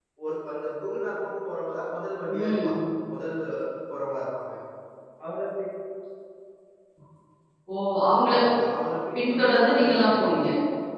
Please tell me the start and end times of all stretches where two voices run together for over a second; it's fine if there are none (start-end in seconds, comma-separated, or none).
9.1-10.4